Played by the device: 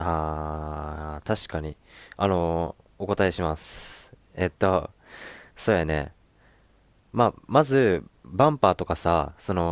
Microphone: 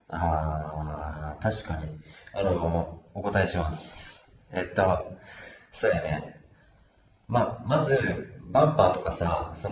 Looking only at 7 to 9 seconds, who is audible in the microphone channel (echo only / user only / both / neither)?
echo only